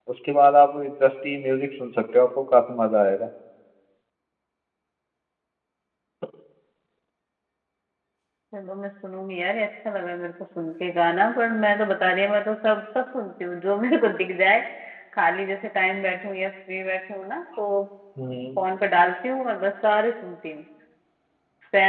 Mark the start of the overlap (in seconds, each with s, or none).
none